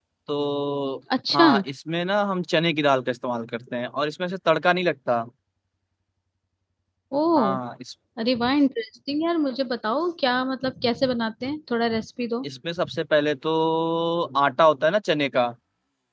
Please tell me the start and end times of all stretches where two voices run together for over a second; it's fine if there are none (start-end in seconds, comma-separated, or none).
none